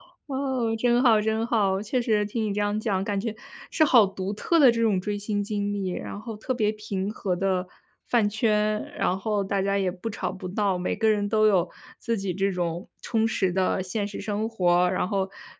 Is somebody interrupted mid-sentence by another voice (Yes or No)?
No